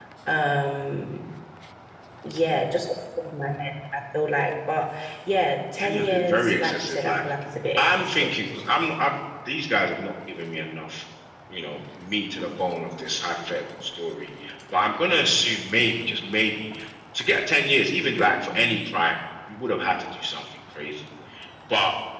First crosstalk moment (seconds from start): 5.8 s

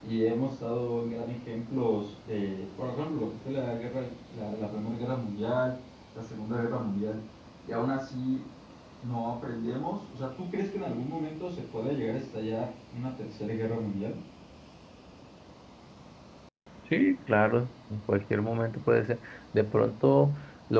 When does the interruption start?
none

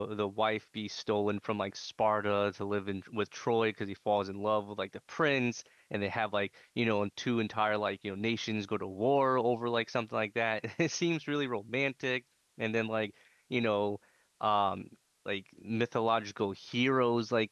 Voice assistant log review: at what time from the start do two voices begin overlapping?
none

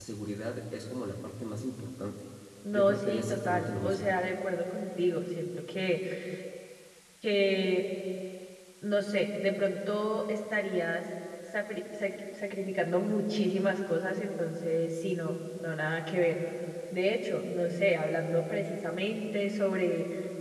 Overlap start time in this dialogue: 2.7 s

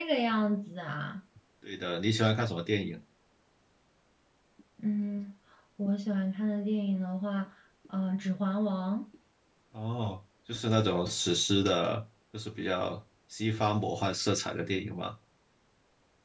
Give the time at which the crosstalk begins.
none

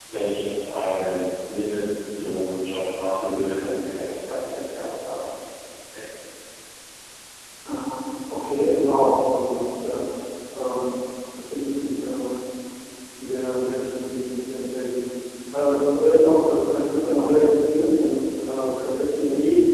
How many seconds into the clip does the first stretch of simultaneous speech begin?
none

